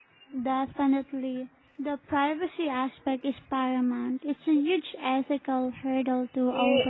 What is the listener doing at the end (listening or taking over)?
taking over